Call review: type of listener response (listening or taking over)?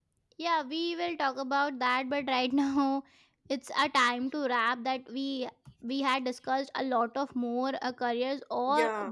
listening